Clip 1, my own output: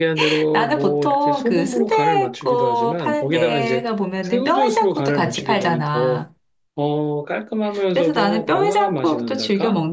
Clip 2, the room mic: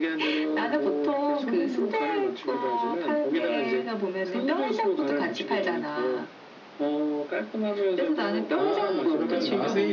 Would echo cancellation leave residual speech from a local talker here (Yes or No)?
Yes